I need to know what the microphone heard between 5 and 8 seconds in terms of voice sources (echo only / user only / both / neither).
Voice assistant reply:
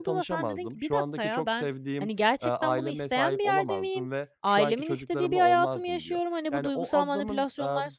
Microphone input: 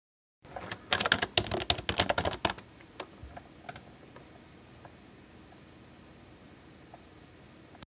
neither